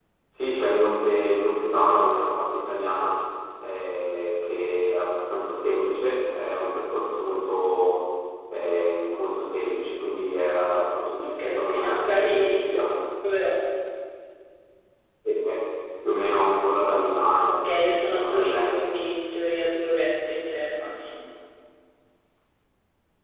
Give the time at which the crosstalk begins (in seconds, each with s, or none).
11.2 s